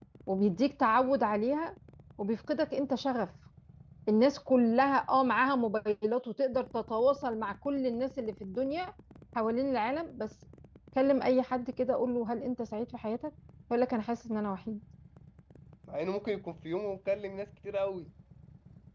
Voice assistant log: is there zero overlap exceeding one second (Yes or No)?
Yes